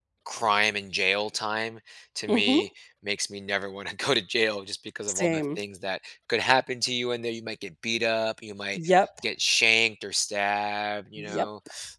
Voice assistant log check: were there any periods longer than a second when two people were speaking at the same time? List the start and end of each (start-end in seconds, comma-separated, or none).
none